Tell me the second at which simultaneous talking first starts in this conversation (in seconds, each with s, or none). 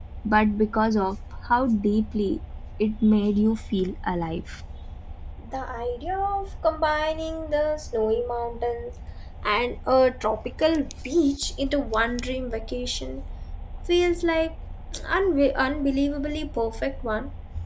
none